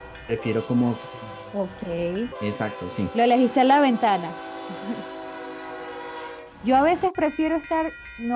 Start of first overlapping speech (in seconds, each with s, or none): none